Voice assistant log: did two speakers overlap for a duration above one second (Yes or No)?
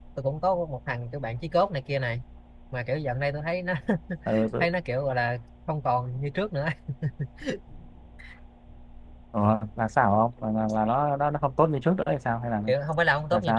No